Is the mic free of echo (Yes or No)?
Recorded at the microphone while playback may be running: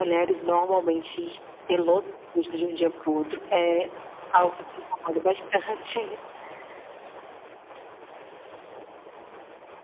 No